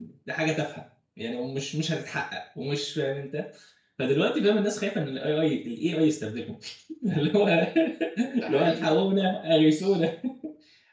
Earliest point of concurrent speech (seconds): 8.4 s

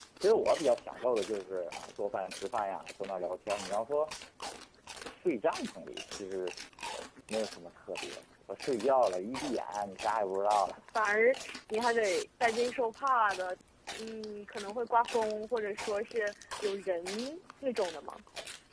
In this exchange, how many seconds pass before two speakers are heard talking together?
none

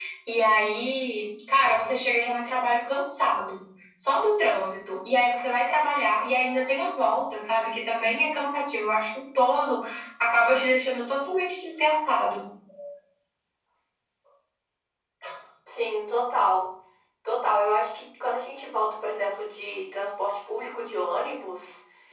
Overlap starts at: none

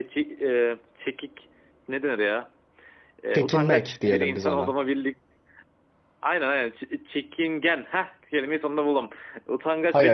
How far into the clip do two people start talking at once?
3.3 s

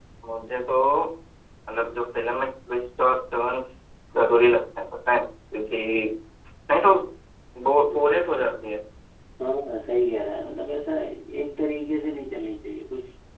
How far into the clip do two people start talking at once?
none

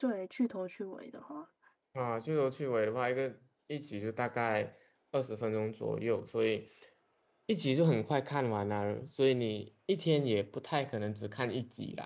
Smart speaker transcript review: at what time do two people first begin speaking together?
none

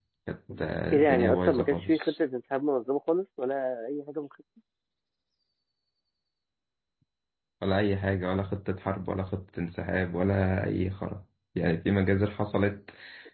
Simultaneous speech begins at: 0.9 s

